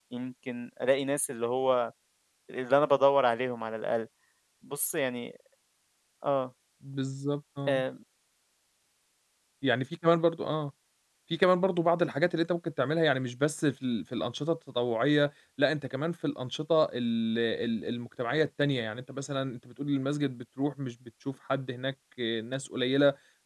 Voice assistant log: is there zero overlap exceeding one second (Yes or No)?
Yes